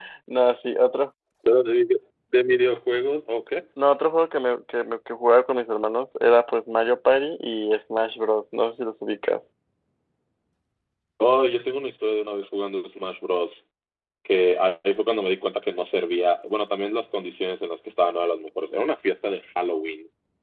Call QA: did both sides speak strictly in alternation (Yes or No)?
Yes